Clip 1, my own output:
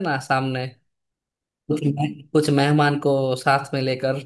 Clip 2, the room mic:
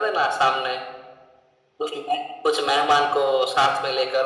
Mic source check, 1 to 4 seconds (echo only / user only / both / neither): echo only